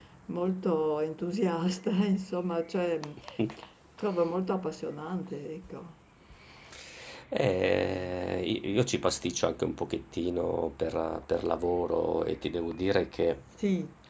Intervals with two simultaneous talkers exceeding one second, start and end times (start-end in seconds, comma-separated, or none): none